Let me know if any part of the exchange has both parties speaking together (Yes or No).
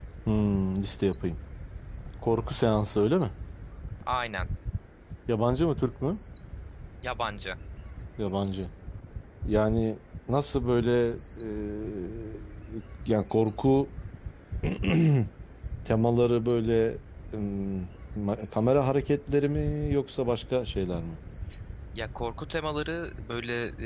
No